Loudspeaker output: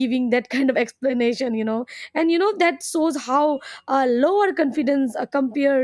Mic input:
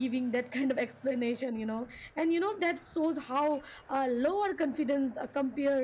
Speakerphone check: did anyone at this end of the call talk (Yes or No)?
No